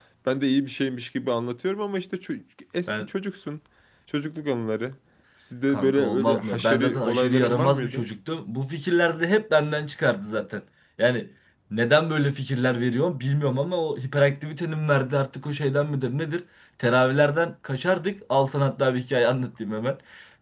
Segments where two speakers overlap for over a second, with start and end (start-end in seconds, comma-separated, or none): 5.7-8.0